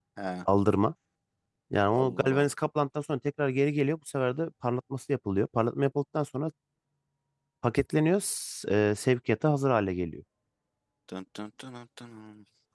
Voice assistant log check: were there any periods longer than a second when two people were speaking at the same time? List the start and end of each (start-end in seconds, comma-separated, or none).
none